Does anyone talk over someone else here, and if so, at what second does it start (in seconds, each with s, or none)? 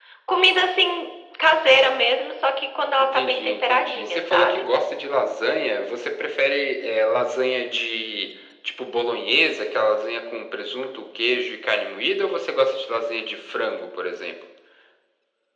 3.0 s